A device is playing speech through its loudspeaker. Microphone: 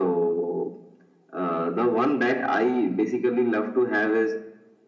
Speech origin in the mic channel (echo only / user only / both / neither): echo only